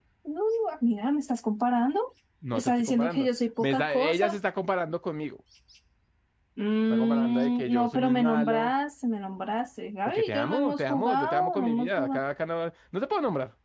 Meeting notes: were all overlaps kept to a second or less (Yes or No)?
No